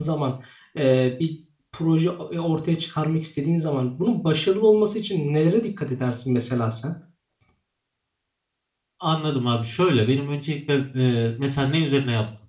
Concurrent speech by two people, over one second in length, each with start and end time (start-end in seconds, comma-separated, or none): none